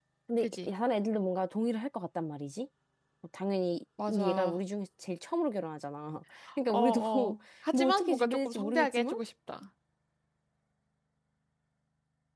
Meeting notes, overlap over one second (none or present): present